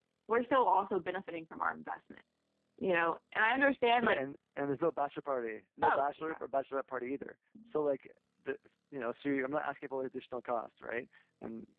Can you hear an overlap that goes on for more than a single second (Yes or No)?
No